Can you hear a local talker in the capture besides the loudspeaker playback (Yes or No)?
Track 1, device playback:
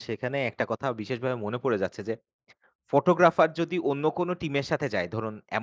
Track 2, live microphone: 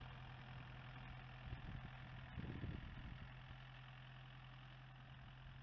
No